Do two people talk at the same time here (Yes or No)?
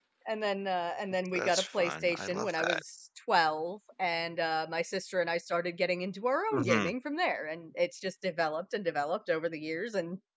Yes